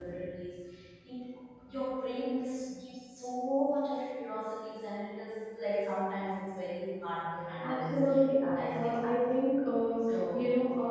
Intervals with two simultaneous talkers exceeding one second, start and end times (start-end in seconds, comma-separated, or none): 7.6-8.9